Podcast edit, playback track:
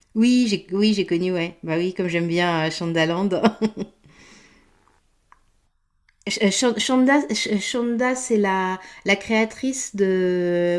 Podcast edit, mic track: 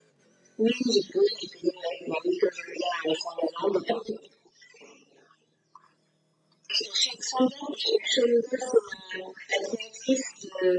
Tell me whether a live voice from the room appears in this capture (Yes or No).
No